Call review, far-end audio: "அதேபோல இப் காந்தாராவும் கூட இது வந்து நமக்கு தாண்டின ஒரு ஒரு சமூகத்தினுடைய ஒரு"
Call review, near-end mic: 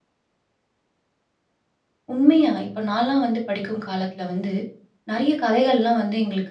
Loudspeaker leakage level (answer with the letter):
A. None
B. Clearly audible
A